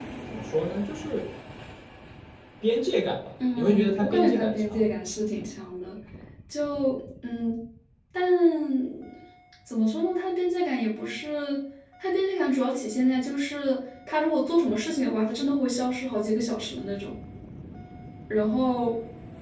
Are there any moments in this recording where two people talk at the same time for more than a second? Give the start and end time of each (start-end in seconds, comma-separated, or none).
3.6-4.9